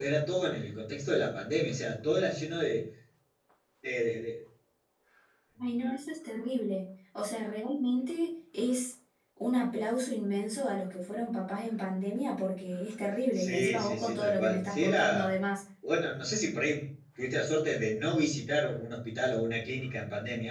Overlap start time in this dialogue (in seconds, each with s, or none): 13.3 s